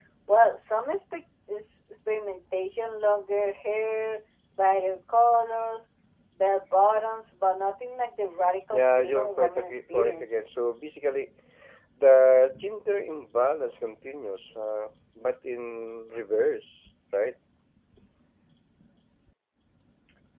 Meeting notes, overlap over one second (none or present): present